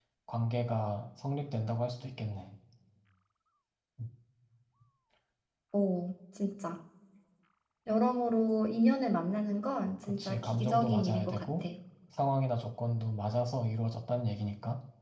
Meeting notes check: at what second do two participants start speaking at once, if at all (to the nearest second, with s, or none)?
10 s